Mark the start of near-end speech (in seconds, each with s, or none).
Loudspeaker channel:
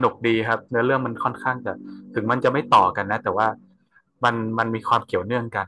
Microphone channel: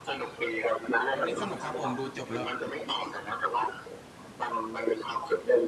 1.1 s